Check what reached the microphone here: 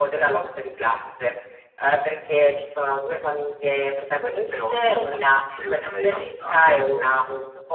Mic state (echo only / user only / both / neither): both